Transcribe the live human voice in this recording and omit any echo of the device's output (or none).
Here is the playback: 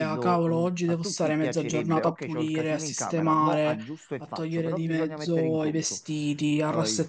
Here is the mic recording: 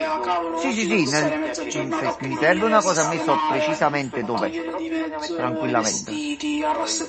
Sì, sì, sì, nel- mm, se mi serve una cosa a me so precisamente dov'è, tranquillamente.